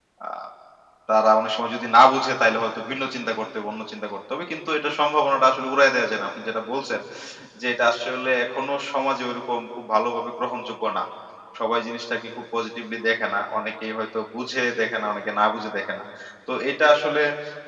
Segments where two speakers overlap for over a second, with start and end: none

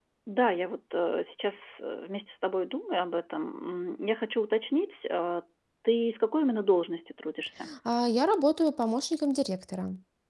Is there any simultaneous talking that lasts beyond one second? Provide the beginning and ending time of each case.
none

